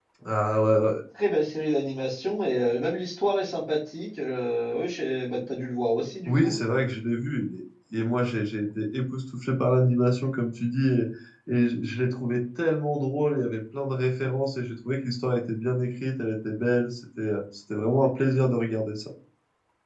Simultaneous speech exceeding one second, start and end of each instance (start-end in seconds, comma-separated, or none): none